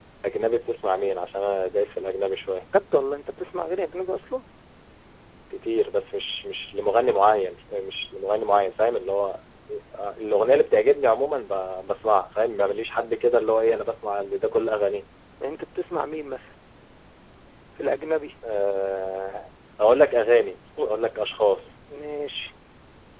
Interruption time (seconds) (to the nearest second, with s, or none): none